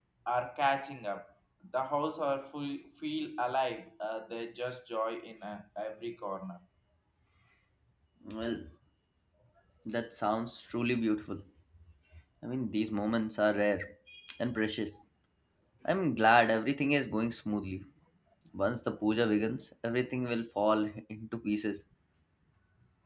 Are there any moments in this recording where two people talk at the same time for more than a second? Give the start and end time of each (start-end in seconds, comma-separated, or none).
none